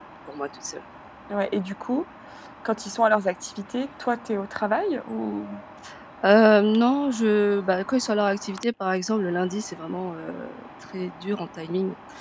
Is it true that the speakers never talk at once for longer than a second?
Yes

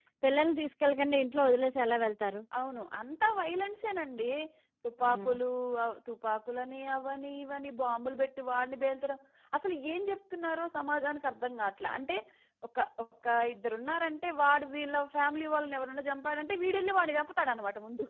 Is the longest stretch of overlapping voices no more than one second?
Yes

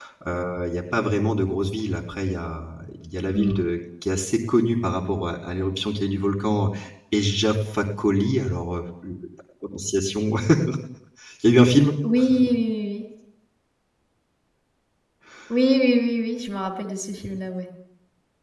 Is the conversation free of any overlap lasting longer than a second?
Yes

